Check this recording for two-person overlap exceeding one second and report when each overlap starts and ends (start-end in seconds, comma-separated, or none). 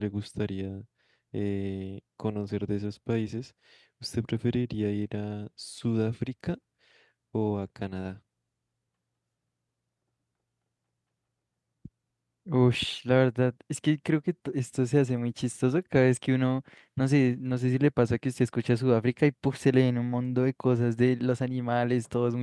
none